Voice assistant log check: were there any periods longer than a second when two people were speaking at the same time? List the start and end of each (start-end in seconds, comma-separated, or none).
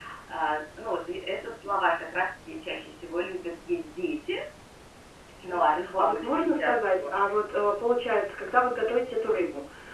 5.5-7.2